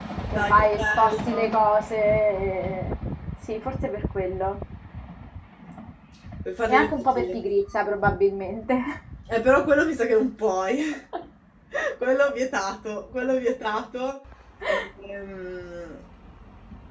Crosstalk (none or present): present